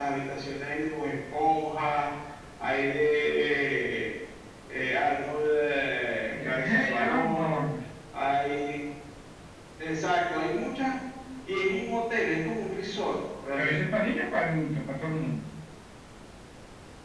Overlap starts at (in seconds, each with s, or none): 6.4 s